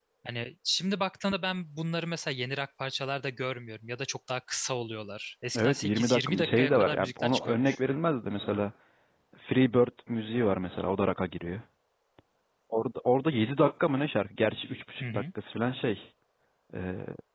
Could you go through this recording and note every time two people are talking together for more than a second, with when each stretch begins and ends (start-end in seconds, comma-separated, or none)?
5.5-7.8